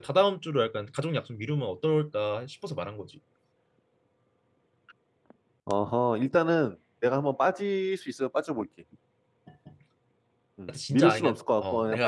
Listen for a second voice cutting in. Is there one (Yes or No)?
Yes